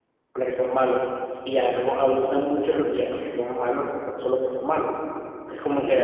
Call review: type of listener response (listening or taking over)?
listening